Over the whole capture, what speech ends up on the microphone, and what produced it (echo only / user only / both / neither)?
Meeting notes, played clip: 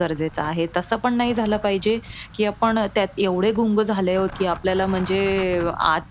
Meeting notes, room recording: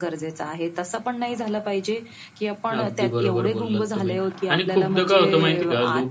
both